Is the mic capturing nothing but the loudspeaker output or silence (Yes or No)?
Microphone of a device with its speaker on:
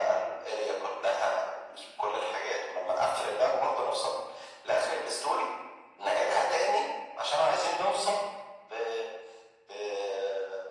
Yes